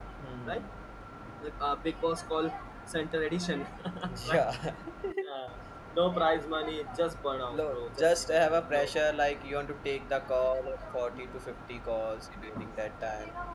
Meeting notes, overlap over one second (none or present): present